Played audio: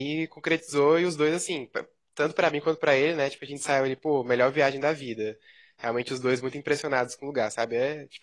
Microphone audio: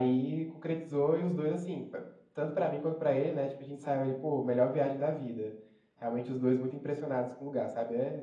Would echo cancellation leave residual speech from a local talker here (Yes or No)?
No